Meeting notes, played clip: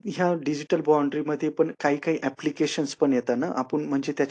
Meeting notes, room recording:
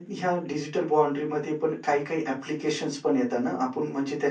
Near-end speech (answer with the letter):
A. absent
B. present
A